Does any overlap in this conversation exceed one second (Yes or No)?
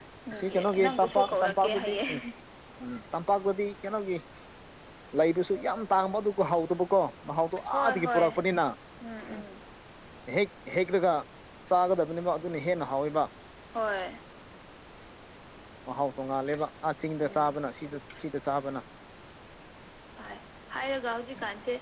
Yes